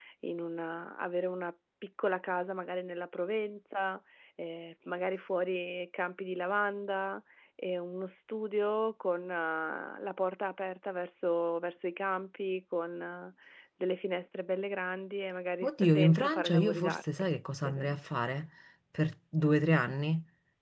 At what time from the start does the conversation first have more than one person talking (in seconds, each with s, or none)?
15.6 s